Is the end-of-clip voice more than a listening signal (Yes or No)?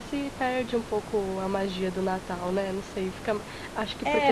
Yes